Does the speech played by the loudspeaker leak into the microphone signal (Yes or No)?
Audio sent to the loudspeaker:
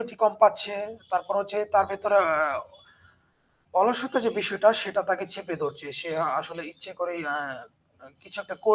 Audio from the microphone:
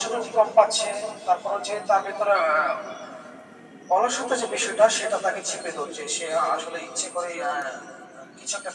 Yes